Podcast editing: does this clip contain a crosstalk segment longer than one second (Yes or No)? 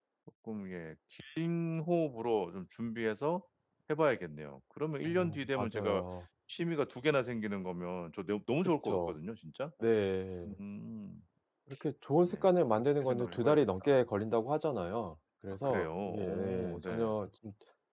Yes